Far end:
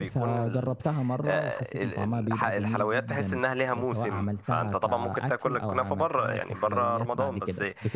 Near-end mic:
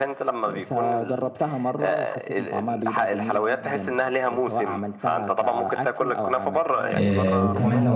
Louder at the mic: user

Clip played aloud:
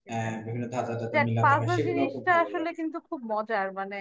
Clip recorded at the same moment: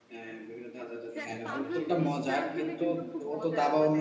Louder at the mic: user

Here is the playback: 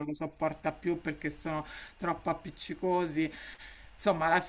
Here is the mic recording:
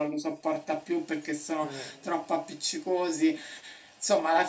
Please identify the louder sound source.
echo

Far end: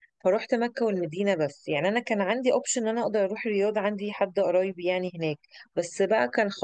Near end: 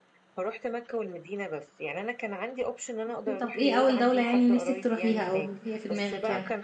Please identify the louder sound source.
user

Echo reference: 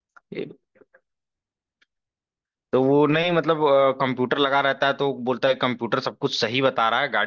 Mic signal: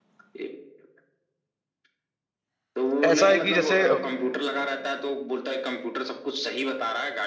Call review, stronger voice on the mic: user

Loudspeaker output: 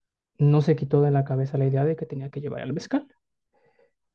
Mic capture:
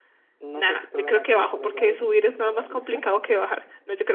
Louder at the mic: user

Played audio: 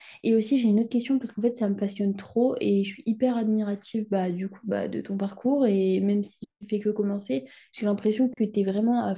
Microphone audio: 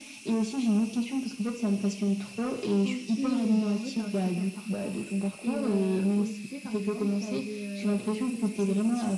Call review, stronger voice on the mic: echo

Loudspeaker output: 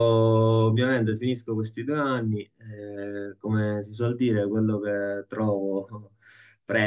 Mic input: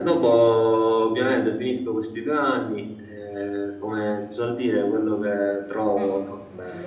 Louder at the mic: echo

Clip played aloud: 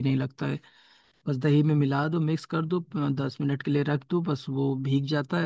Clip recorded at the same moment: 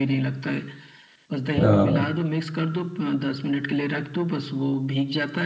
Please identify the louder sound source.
user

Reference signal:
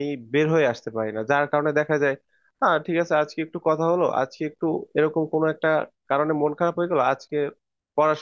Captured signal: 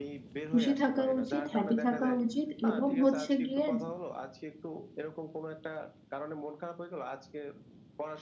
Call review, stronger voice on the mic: user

